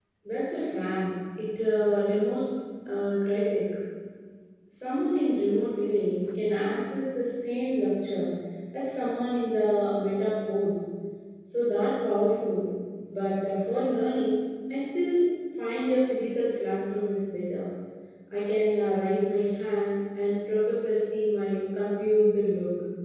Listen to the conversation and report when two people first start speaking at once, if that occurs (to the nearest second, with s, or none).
none